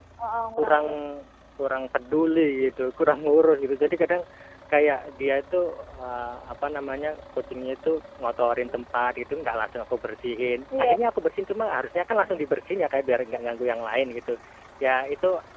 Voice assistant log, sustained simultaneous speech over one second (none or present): none